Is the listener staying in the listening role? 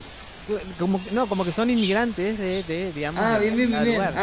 No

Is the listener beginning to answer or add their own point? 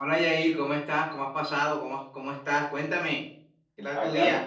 Yes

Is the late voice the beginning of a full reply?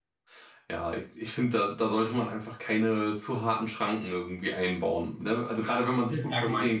Yes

